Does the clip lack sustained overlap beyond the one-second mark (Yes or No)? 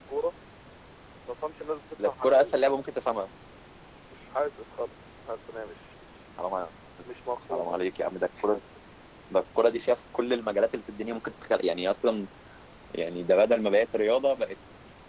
Yes